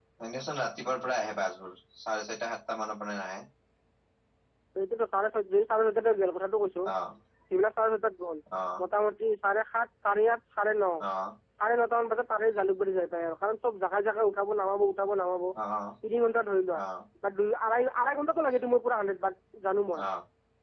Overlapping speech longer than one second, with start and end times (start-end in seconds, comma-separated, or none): none